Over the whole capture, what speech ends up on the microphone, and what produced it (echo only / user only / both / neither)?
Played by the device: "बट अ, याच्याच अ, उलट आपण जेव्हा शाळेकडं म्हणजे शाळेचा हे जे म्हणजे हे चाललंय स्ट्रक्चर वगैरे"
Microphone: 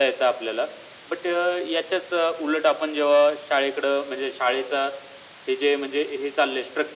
echo only